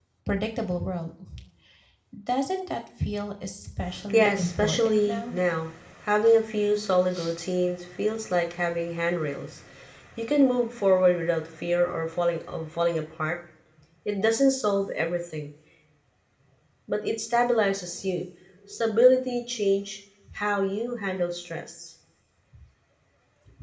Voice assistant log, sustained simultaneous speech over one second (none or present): present